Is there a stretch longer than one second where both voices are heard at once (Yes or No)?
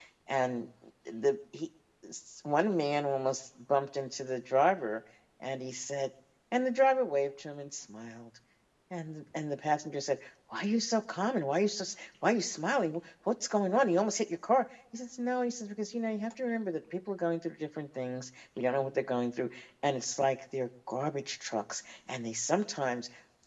No